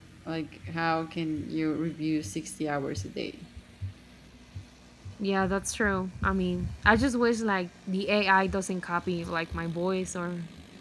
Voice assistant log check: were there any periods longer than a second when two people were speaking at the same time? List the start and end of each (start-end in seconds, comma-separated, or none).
none